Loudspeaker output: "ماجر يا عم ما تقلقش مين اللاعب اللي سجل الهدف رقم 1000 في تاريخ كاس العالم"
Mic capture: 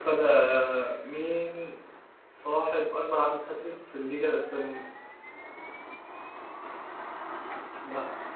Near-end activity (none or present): present